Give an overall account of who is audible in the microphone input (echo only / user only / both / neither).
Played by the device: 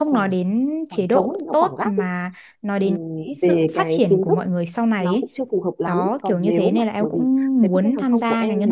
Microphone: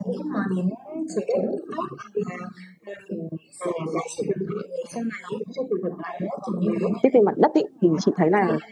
both